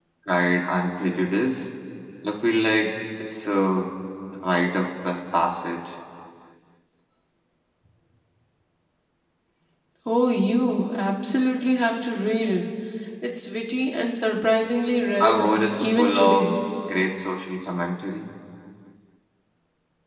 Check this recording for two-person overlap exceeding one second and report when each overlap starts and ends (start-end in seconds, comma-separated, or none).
15.2-16.4